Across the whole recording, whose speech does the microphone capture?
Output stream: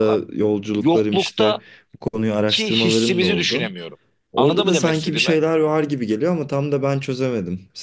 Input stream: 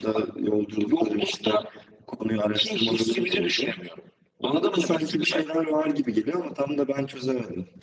echo only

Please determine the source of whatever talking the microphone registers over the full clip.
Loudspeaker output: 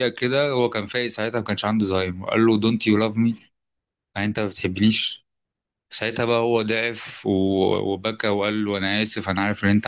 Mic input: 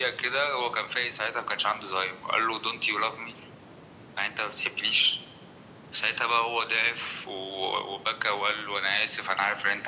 echo only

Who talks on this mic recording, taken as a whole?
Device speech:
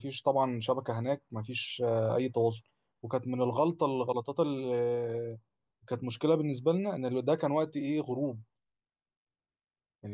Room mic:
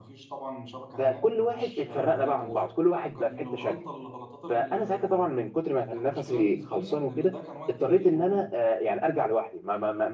both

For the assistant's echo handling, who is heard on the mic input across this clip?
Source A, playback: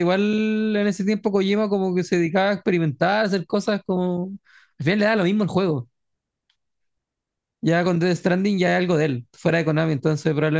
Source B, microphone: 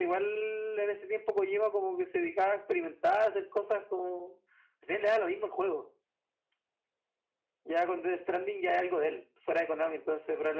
echo only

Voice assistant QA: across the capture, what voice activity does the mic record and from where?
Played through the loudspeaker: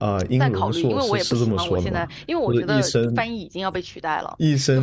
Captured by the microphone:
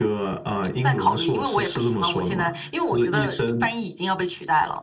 echo only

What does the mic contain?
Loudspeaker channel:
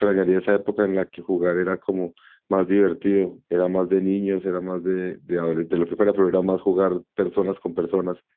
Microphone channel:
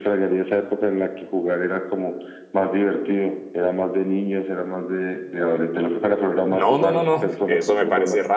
both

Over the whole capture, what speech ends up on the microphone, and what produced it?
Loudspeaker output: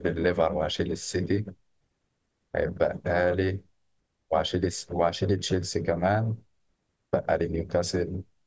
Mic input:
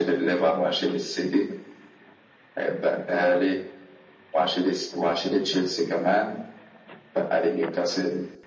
echo only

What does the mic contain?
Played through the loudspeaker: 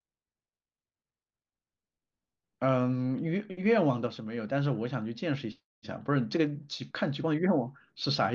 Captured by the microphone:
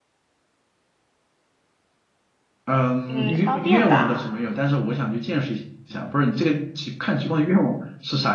both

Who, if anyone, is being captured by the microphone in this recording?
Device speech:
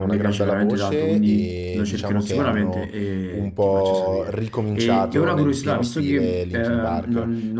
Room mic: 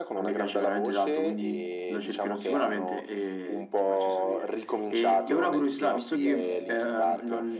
both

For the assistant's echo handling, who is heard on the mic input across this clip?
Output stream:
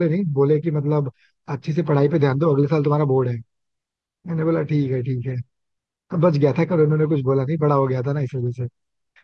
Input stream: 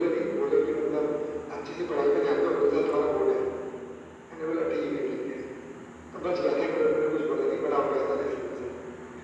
echo only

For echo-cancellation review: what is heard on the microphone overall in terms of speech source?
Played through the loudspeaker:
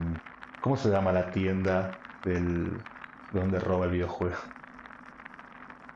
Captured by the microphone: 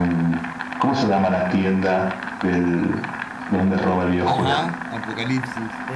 both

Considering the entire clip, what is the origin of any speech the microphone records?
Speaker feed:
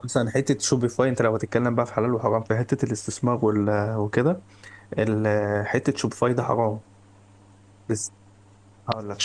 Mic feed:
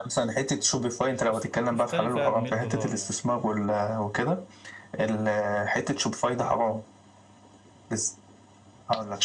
both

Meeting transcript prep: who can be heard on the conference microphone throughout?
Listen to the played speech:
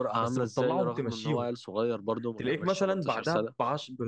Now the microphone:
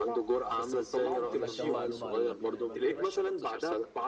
both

